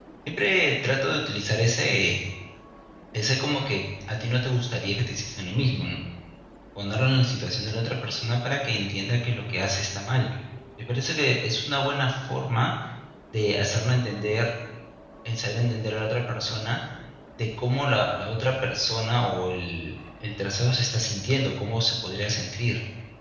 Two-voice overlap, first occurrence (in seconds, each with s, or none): none